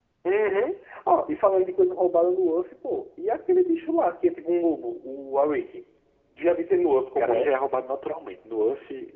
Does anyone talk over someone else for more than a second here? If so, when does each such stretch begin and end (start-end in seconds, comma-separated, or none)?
none